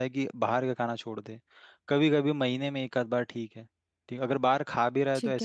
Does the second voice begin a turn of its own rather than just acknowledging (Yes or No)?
No